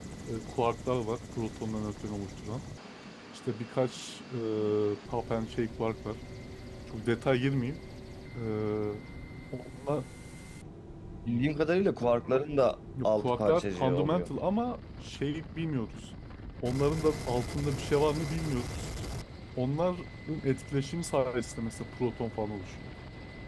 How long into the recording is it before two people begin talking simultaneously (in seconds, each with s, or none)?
12.9 s